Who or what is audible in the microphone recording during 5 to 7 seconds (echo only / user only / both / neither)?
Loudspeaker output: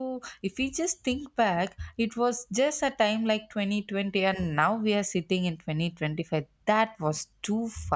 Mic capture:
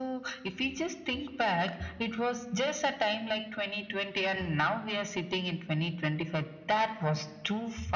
echo only